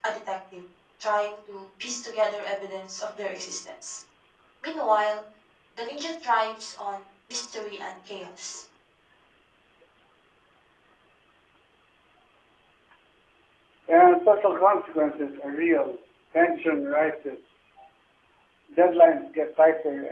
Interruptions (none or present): none